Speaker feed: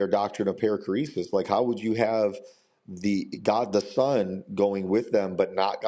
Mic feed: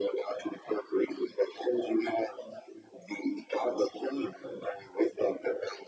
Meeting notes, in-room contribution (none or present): none